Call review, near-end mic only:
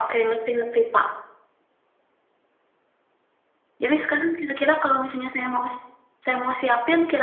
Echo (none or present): present